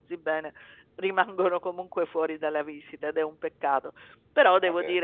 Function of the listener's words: listening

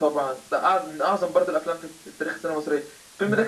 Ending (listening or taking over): listening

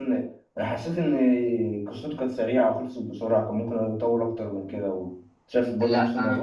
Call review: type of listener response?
taking over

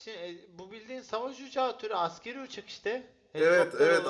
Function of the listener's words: taking over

